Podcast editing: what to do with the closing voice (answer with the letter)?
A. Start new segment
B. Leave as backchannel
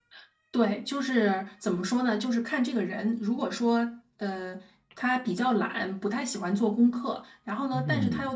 B